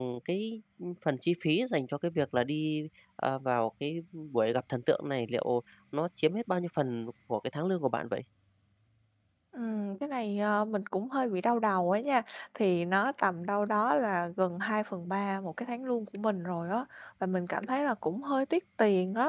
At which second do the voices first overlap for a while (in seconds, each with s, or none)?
none